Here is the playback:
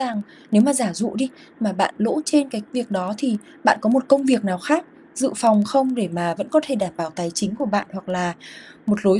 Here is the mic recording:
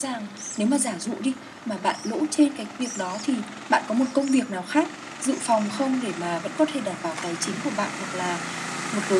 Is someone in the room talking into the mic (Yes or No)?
No